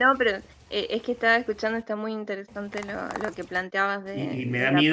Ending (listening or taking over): taking over